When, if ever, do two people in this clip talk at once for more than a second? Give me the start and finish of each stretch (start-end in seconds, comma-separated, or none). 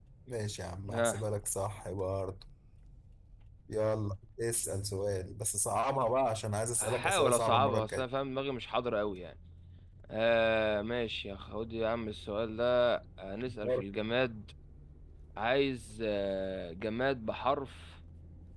6.8-8.0